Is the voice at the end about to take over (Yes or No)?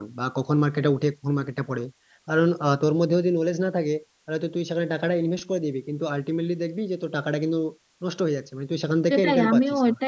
Yes